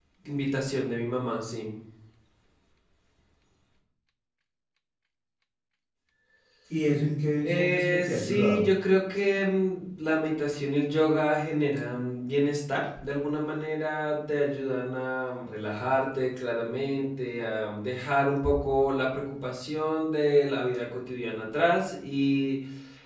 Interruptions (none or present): present